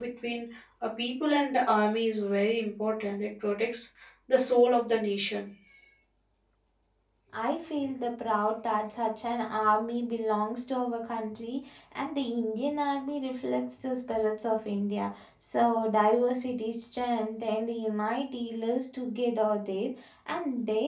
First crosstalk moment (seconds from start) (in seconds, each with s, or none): none